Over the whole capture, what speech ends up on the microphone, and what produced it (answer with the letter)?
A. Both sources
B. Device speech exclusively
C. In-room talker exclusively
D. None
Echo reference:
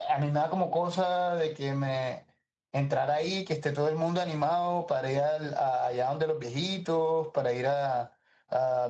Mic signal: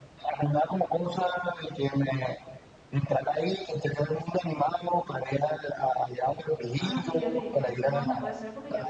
A